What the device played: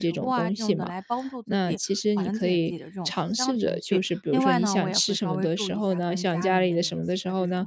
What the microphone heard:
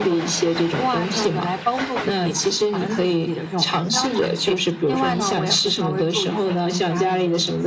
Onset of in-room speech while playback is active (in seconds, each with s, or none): none